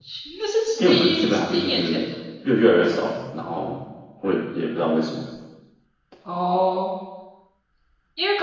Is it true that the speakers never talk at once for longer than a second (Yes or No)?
No